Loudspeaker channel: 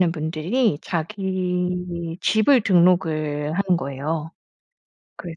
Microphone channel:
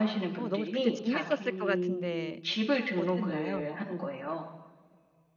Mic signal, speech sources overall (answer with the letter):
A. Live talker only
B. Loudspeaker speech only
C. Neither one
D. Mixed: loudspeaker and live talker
D